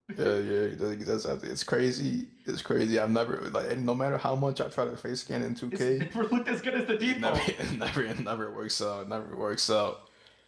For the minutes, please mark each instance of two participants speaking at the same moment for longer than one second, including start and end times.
none

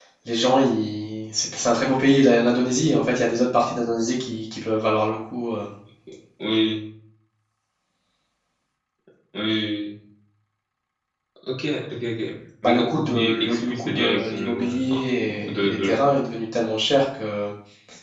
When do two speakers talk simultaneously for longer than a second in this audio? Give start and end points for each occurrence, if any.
12.6-16.0

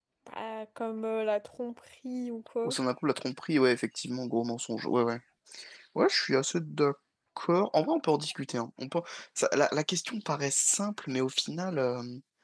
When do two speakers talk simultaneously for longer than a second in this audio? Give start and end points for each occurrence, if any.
none

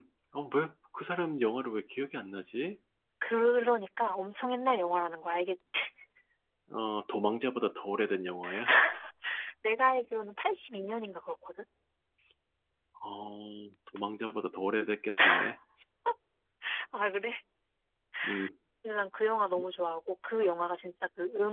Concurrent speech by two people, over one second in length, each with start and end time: none

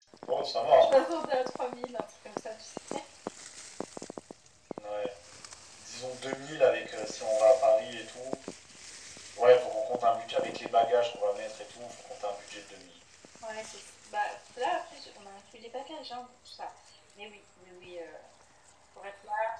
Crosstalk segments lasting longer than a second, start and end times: none

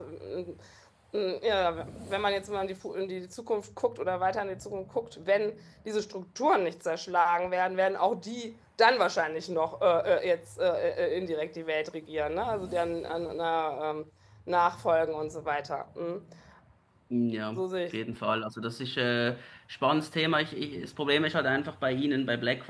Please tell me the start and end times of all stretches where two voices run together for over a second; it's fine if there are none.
none

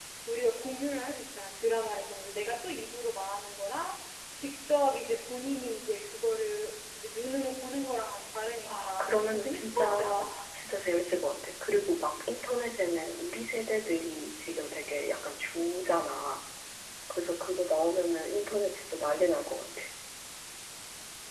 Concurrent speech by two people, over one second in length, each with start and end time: 8.7-10.3

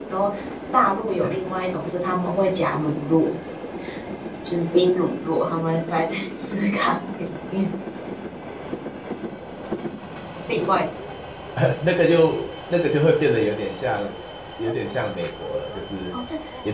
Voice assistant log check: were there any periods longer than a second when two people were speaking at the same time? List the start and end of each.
none

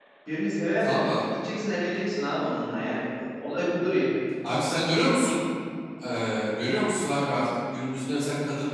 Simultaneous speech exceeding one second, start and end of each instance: none

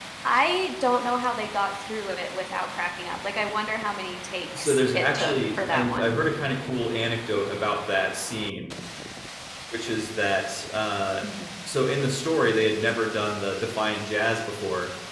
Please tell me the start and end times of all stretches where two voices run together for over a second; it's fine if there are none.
4.6-6.1

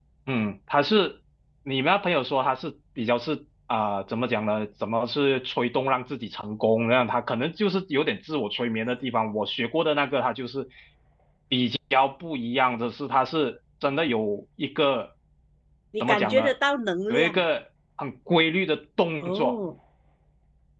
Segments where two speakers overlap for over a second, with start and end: none

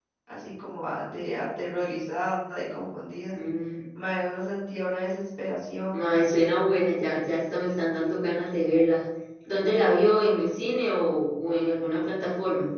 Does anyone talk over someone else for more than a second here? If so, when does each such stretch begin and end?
none

